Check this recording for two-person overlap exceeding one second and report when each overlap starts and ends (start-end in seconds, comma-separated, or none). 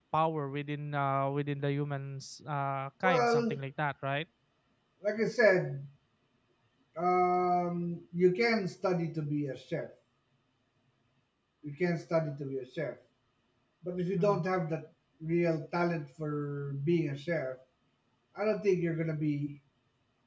none